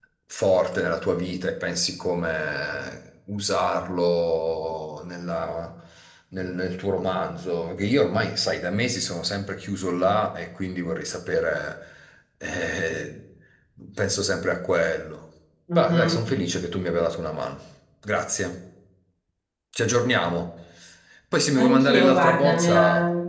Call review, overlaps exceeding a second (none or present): present